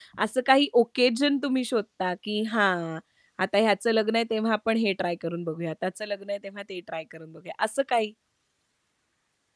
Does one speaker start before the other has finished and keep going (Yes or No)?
No